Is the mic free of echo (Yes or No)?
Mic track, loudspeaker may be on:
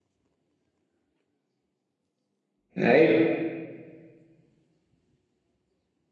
Yes